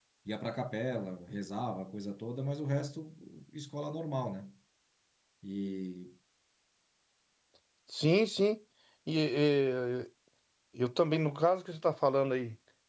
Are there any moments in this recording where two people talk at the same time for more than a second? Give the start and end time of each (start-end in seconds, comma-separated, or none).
none